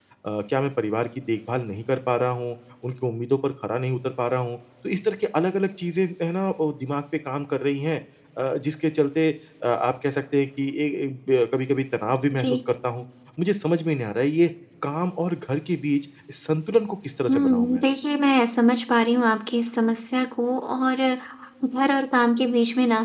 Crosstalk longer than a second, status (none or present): none